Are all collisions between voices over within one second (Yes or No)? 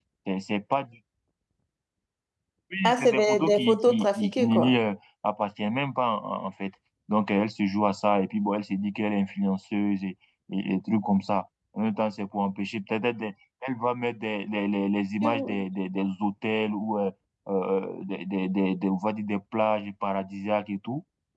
No